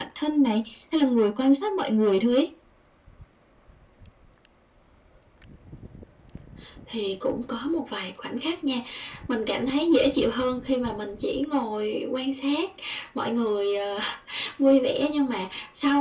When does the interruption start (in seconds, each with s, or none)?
none